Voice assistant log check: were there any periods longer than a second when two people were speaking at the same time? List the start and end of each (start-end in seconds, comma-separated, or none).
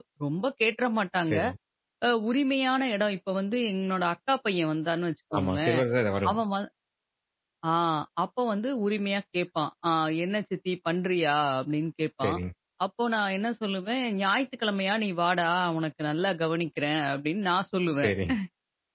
none